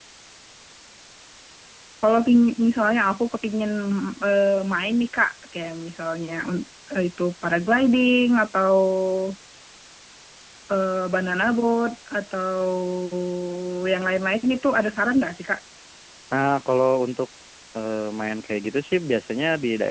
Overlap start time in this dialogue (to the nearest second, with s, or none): none